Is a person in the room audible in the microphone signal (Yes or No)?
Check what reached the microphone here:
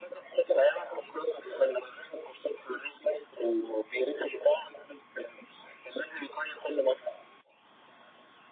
No